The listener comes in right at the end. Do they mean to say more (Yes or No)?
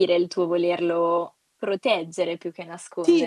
Yes